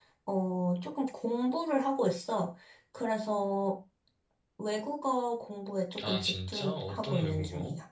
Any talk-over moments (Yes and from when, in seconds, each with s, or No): Yes, from 6.0 s